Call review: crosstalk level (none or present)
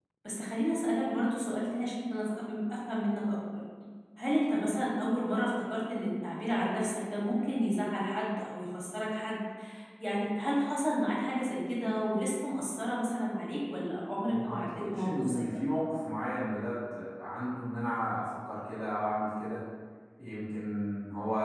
present